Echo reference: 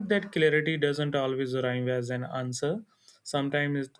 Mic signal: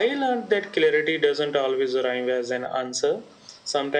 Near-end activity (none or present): none